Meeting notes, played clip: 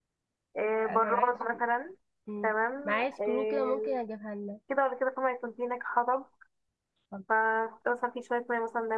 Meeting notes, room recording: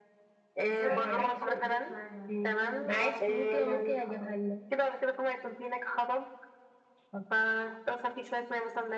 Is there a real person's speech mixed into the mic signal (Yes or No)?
Yes